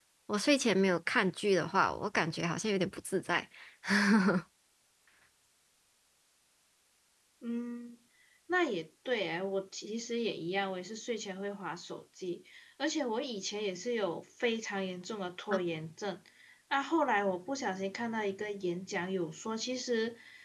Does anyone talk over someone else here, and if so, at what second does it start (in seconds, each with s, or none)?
none